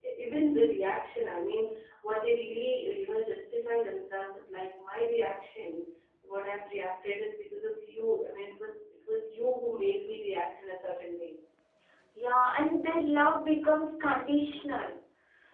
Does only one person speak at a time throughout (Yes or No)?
Yes